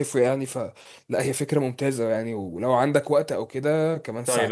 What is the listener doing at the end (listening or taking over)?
taking over